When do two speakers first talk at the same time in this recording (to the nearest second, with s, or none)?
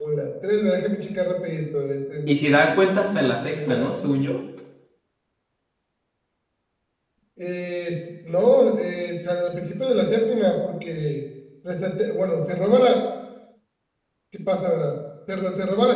2 s